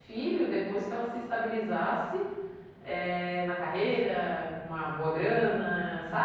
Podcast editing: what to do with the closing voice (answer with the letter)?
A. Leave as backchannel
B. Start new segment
B